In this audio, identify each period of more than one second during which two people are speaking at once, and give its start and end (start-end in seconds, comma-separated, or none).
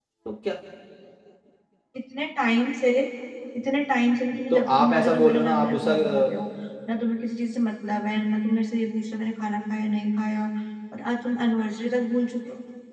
4.5-6.3